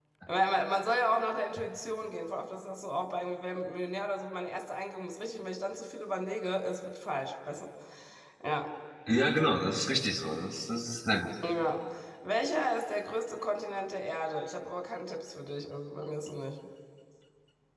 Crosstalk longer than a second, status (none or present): none